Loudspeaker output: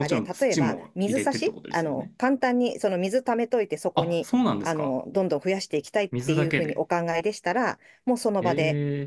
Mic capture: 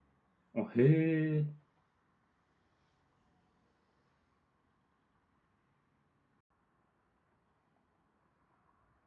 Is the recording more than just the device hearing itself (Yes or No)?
Yes